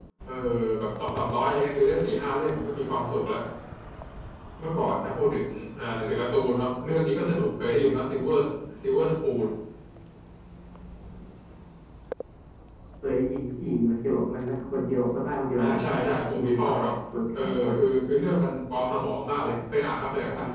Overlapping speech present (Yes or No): Yes